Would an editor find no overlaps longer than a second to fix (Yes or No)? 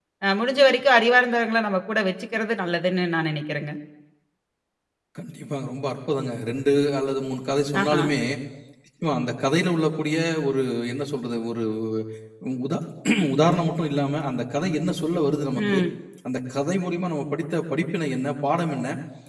Yes